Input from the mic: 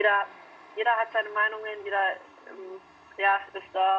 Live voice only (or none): none